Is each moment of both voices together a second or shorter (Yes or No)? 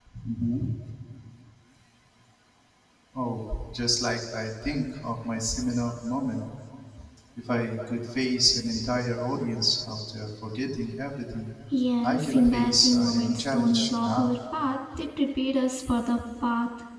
No